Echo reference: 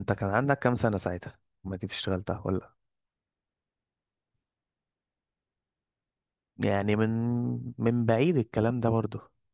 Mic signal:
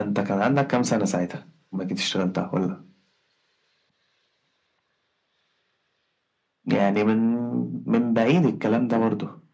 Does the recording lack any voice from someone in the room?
Yes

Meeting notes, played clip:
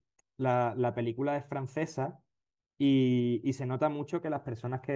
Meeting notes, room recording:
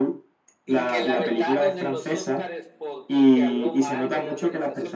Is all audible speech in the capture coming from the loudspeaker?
No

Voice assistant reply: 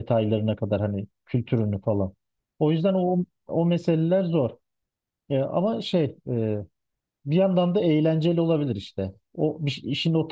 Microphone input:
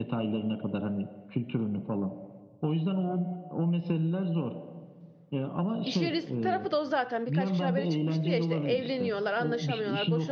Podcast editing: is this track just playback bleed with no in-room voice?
No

